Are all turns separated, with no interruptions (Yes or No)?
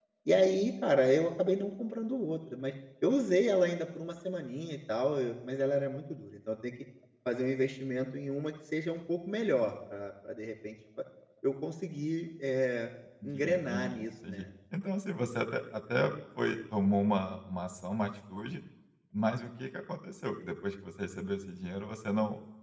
No